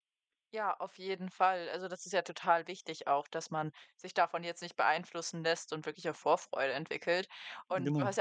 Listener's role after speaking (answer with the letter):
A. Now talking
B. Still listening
B